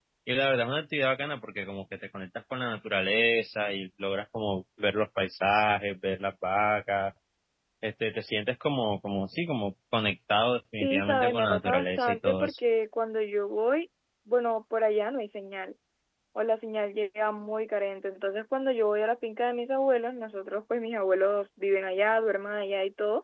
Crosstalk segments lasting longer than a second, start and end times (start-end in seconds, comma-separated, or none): 10.8-12.5